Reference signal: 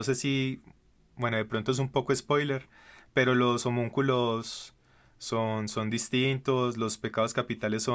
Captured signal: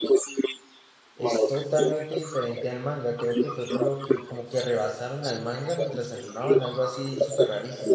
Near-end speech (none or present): present